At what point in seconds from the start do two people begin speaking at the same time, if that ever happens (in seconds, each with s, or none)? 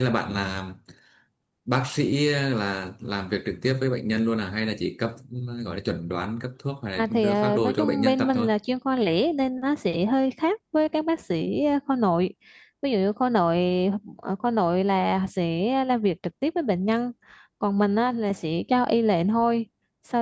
7.0 s